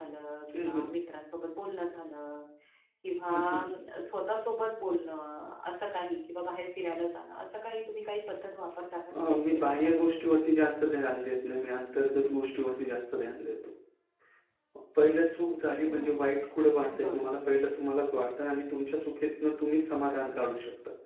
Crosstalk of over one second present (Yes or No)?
Yes